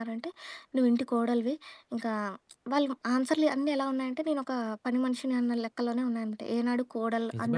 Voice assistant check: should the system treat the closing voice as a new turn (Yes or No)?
Yes